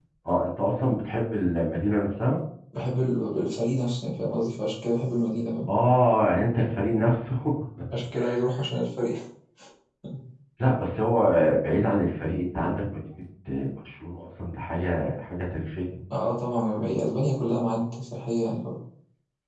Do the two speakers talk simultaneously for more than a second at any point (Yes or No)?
No